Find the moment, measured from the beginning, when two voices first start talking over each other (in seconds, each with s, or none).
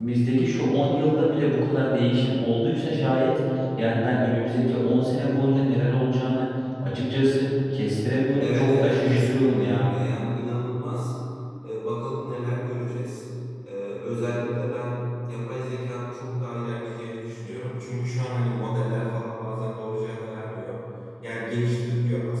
8.4 s